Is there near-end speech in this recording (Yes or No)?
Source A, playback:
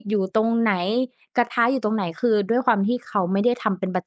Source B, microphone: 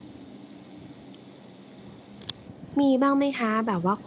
Yes